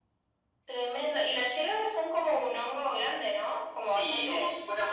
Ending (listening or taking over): taking over